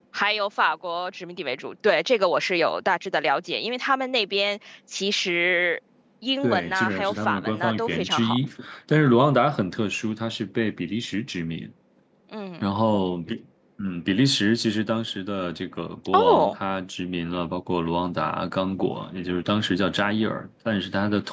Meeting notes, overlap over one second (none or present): present